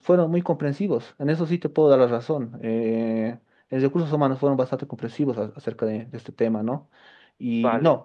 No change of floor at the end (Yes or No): Yes